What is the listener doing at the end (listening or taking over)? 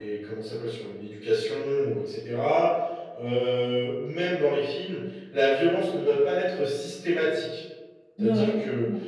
listening